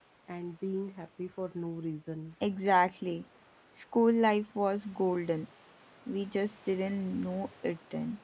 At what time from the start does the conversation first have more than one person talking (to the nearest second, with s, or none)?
none